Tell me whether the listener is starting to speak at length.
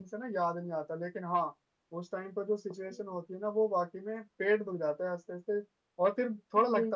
No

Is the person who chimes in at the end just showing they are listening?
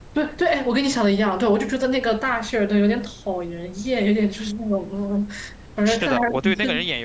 No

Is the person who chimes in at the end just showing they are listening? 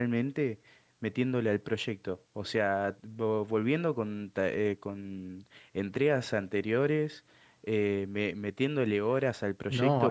No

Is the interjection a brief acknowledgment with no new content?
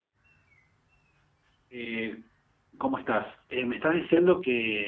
Yes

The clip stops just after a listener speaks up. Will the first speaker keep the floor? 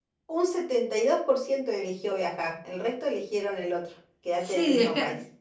No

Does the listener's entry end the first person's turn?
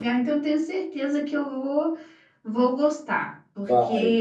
No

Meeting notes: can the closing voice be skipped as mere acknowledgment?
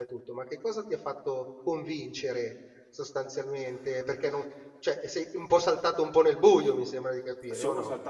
No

